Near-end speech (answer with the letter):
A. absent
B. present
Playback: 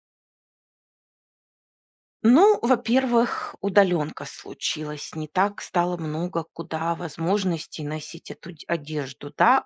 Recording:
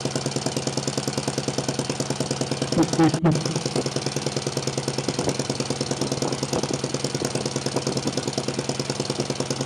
B